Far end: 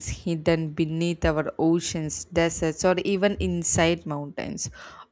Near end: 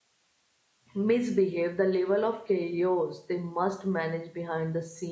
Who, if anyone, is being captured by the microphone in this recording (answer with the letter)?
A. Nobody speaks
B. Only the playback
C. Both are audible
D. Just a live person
D